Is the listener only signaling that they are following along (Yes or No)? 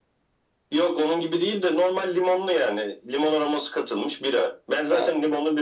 Yes